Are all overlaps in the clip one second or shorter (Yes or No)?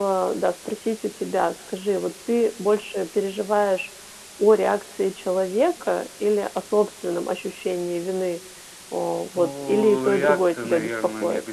No